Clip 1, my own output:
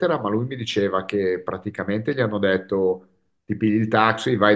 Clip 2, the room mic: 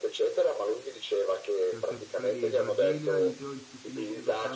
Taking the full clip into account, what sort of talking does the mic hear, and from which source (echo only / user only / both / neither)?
both